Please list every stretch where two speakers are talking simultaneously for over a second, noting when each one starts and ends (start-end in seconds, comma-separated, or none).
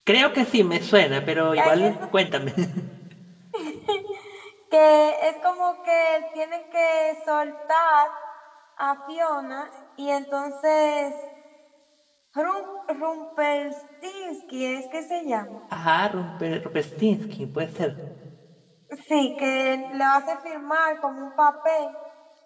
none